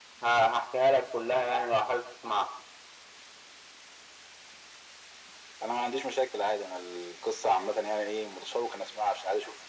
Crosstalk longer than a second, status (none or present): none